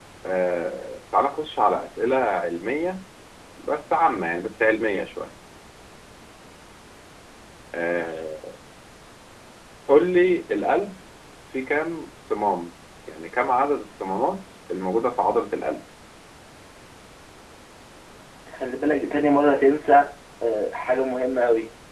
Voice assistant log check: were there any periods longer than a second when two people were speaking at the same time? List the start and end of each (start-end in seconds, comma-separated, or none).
none